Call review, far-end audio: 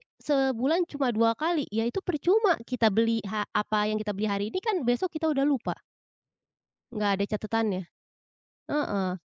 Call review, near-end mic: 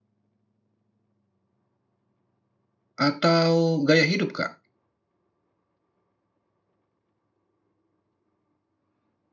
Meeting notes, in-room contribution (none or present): present